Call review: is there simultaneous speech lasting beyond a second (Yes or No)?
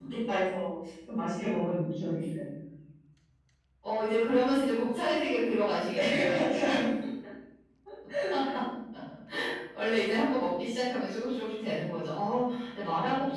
No